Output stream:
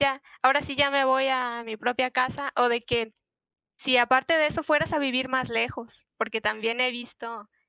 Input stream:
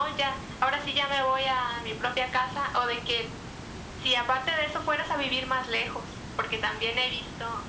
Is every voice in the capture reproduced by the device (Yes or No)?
Yes